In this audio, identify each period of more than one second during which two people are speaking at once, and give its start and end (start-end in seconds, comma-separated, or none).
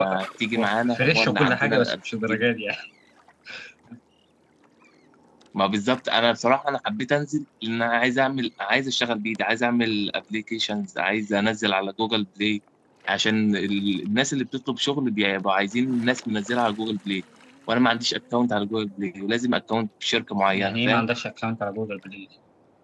0.6-2.5